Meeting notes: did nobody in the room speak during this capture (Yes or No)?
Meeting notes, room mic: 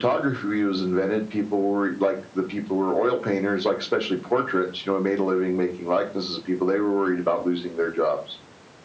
Yes